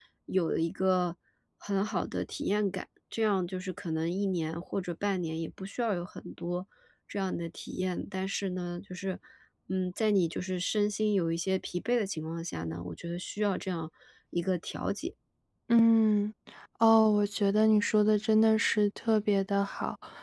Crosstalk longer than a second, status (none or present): none